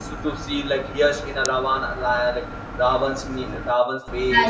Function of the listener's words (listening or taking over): listening